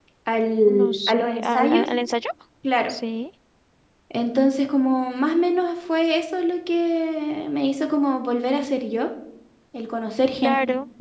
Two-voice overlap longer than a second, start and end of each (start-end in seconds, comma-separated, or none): 0.7-1.9